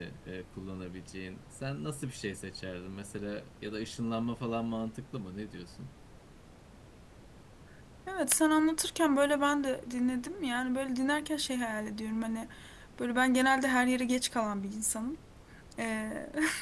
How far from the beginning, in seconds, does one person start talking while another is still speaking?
none

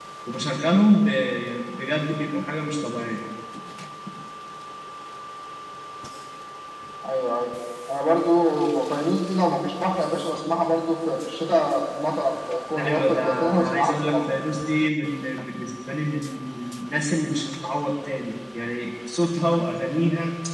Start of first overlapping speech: 12.8 s

